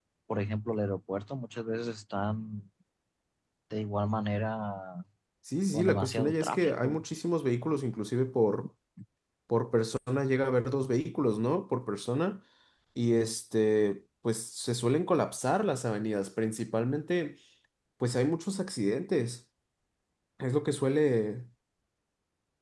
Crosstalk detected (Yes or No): Yes